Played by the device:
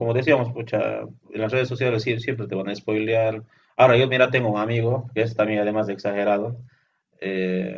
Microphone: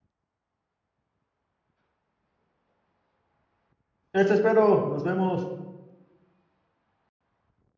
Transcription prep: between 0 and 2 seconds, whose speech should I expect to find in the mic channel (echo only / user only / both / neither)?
neither